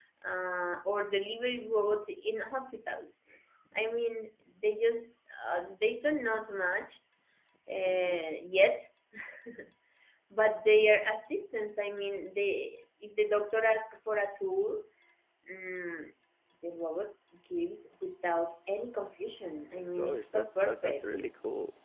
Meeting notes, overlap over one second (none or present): present